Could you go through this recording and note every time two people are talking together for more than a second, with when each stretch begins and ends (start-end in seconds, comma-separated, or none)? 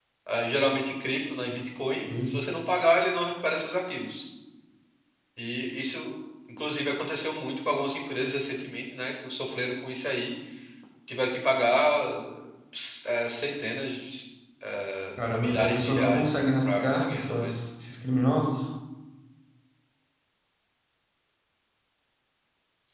15.4-17.5